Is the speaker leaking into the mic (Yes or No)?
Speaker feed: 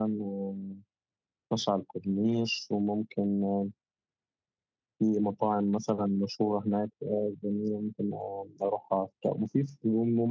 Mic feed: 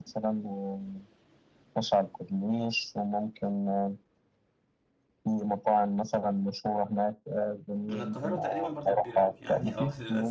Yes